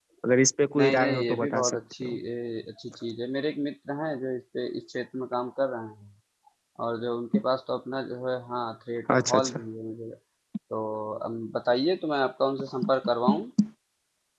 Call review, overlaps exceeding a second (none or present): present